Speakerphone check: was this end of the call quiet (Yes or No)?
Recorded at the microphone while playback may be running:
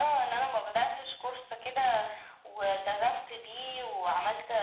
Yes